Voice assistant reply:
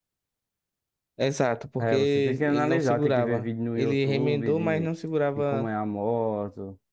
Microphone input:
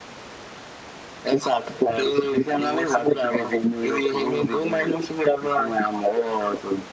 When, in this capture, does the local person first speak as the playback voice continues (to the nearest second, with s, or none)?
none